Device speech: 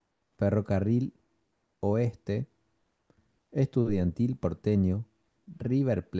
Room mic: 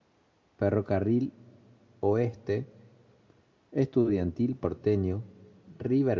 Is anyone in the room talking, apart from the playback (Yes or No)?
No